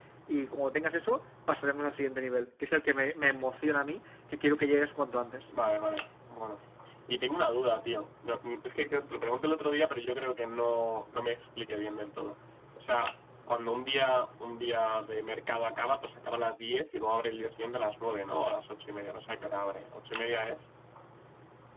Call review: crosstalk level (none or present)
none